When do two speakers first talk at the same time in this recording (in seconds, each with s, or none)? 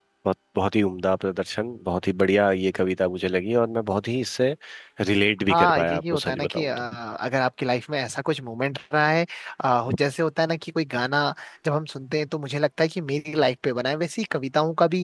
5.5 s